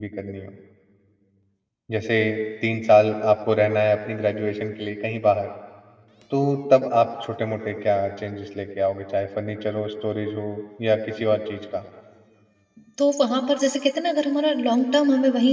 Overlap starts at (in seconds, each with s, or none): none